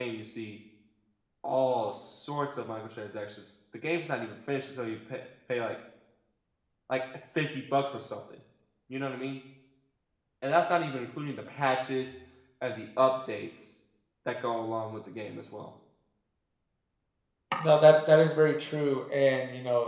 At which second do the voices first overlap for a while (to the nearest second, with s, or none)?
none